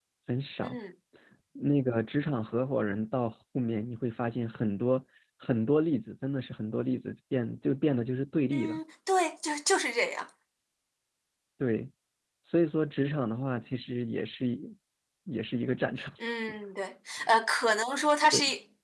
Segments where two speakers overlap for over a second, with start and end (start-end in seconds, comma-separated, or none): none